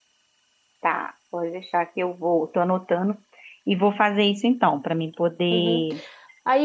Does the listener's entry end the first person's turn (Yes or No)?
Yes